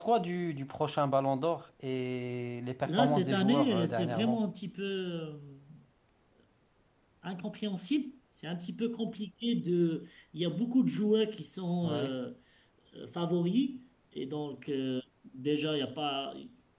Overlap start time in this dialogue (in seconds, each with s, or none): 2.9 s